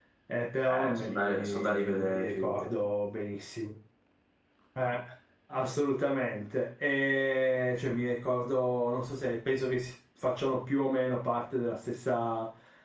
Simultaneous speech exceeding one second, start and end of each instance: 0.7-2.7

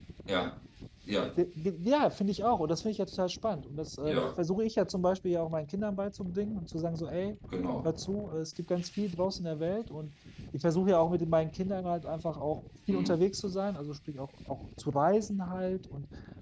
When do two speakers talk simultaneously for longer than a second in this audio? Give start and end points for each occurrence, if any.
none

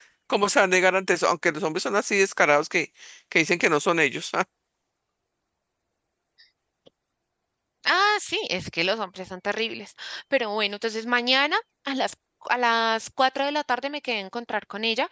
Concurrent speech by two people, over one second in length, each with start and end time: none

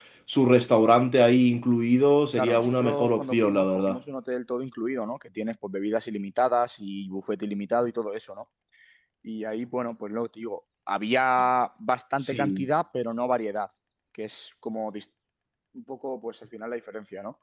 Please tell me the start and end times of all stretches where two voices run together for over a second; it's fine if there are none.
2.4-4.0

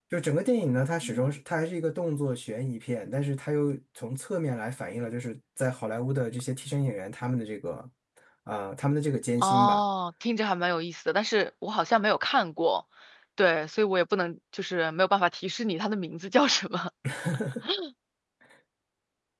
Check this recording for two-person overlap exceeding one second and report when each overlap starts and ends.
none

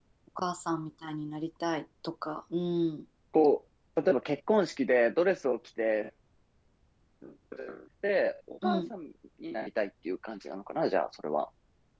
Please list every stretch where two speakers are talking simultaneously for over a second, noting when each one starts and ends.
none

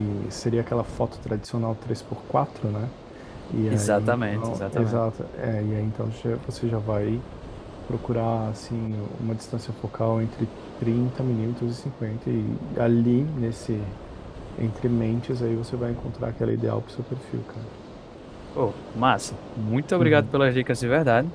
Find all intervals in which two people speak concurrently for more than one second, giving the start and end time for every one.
3.7-5.0

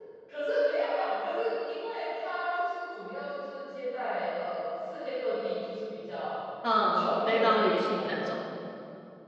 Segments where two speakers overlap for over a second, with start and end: 6.9-8.1

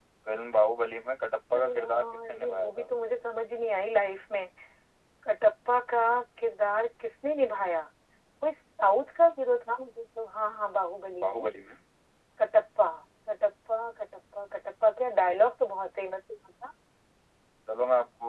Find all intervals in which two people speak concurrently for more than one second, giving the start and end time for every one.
1.5-2.9

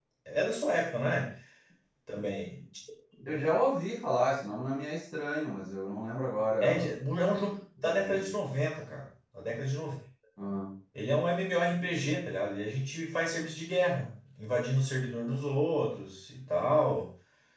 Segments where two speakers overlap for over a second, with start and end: none

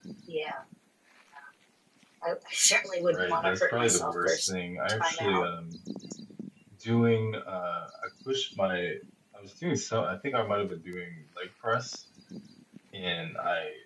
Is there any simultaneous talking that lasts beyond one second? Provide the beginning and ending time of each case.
3.1-4.5

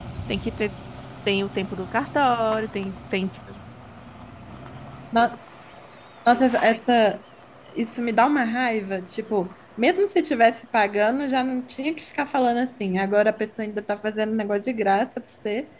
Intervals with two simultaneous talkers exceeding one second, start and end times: none

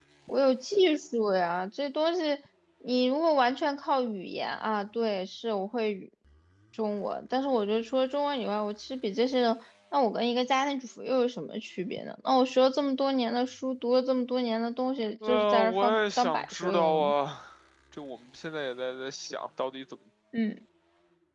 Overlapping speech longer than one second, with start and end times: 15.3-17.1

